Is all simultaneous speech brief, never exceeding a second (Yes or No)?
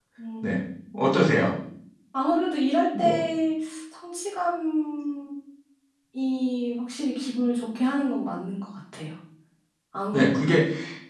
Yes